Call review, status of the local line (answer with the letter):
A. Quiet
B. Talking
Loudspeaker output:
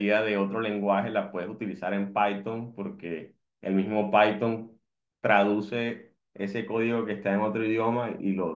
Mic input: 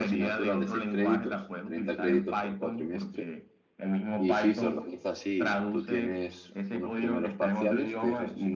B